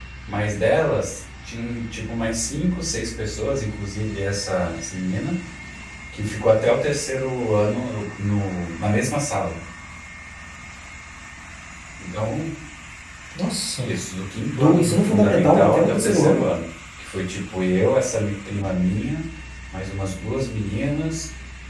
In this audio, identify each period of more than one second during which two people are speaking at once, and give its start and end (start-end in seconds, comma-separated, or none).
14.5-16.4